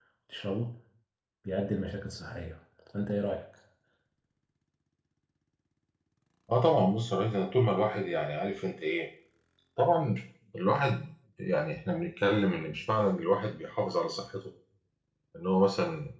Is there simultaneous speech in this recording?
No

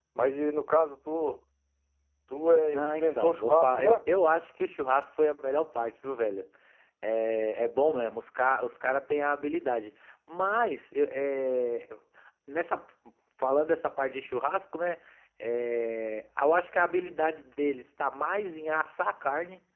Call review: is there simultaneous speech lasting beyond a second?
Yes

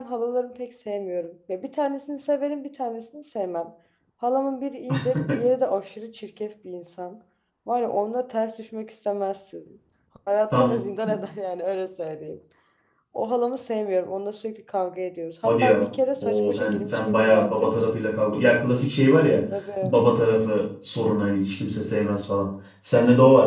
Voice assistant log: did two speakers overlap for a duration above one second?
Yes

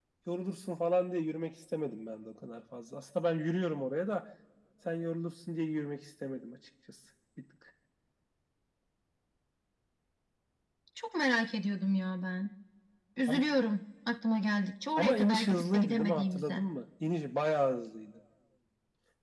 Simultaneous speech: Yes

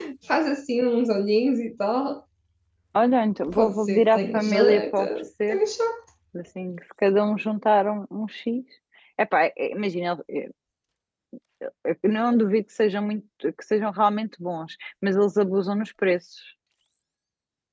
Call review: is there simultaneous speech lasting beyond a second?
Yes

